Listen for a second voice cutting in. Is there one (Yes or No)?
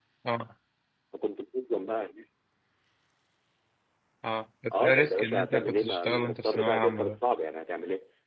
Yes